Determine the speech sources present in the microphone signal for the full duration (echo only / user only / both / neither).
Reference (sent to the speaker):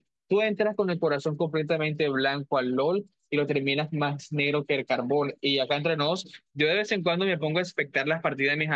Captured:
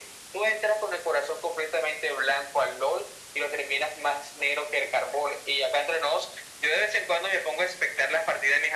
echo only